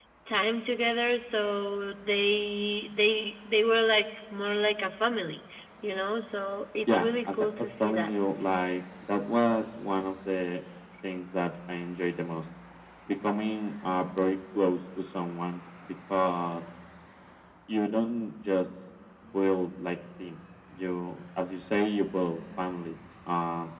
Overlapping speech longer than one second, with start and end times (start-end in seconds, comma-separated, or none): 6.9-8.1